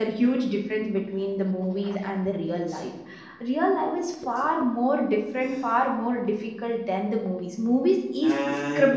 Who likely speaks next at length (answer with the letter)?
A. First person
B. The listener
B